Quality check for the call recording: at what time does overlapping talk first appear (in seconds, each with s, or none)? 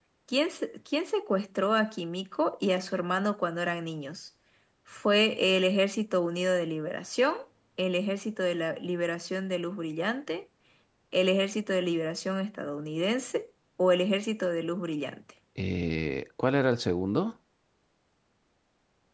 none